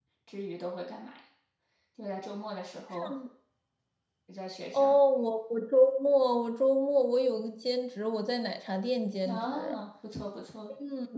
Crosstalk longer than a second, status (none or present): none